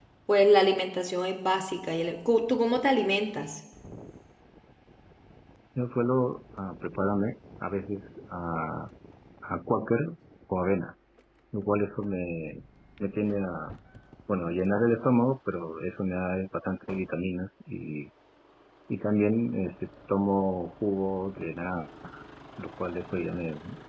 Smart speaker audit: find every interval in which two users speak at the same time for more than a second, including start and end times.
none

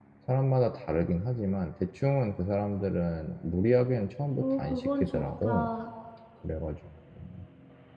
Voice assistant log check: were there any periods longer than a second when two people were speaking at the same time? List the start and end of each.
4.4-5.7

